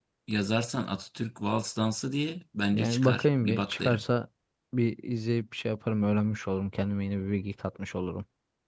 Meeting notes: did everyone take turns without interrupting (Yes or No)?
No